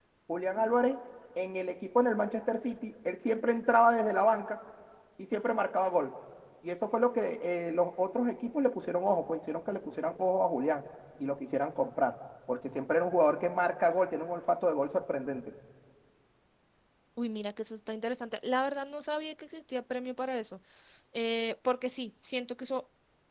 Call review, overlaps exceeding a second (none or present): none